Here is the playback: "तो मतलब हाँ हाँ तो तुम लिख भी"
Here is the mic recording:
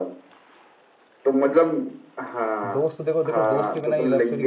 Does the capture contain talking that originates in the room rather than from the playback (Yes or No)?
Yes